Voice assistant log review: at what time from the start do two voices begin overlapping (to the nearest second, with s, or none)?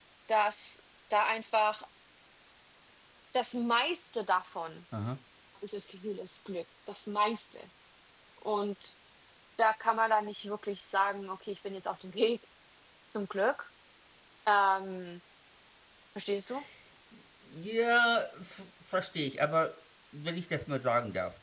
none